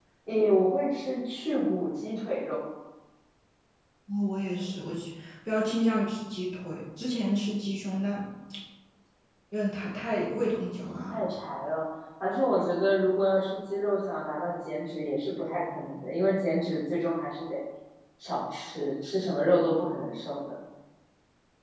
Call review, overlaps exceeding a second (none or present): none